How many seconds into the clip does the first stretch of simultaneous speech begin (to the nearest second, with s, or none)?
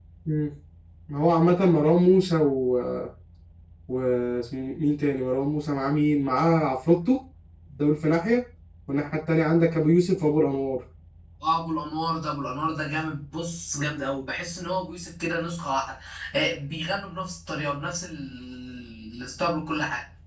none